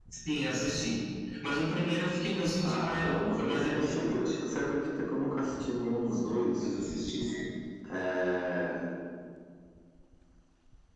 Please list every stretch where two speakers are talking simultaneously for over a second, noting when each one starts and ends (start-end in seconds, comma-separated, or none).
2.6-4.3